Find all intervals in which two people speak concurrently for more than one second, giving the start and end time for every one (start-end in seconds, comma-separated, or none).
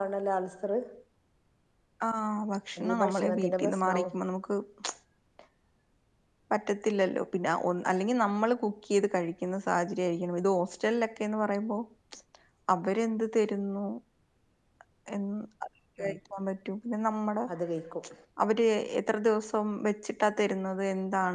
2.8-4.1